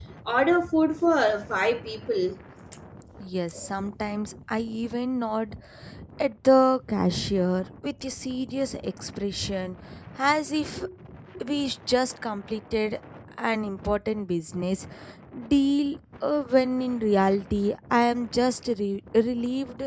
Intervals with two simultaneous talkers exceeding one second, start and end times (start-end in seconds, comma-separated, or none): none